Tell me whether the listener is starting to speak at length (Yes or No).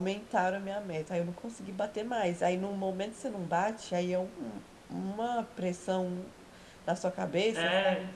Yes